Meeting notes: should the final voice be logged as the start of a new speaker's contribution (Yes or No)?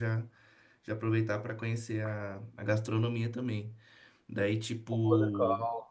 No